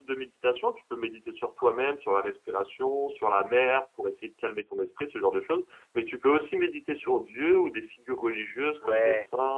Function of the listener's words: taking over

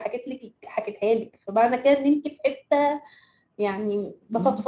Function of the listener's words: listening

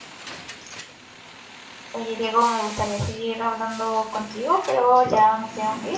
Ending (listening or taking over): listening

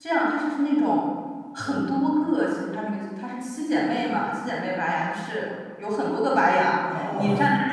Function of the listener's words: listening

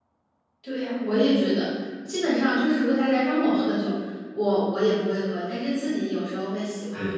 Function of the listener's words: taking over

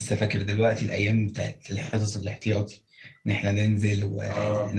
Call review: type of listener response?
taking over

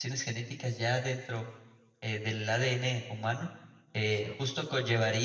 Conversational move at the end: listening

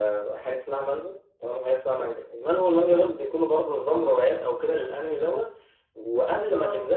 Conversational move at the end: listening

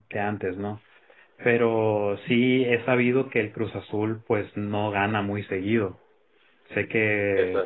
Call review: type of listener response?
listening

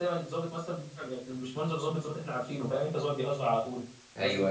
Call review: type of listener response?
listening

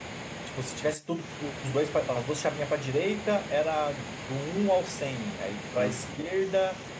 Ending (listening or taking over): listening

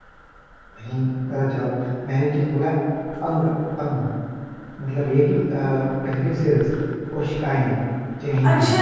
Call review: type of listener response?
taking over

